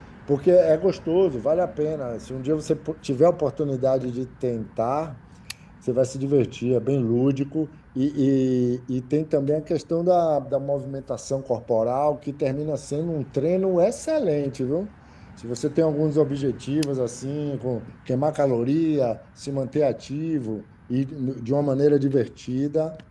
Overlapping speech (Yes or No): No